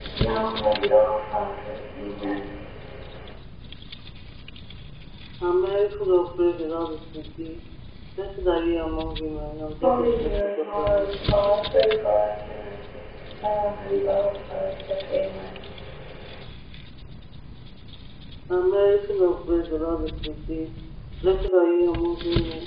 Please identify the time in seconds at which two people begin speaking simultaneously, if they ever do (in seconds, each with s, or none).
9.8 s